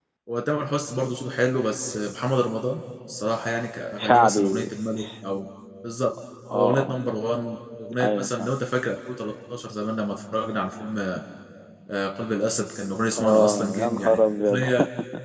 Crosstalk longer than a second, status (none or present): present